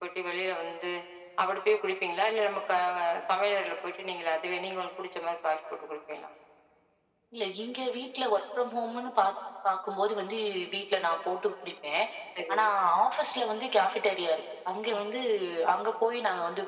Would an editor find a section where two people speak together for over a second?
No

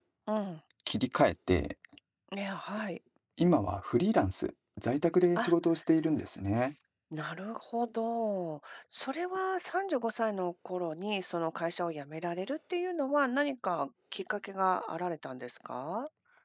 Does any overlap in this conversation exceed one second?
No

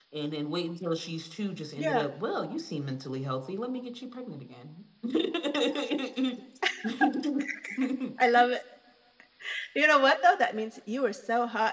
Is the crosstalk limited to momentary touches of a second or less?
Yes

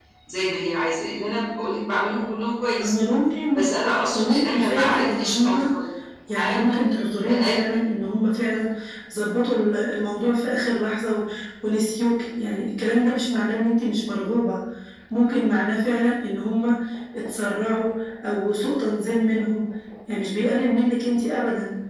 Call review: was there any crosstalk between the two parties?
Yes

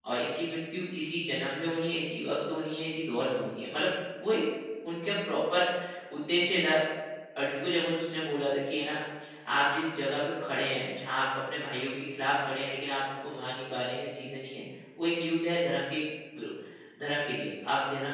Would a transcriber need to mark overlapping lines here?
No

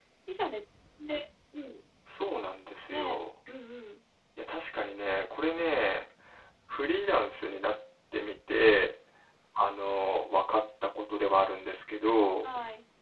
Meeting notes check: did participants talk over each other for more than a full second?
No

